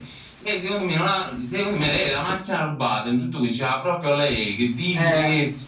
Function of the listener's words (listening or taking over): listening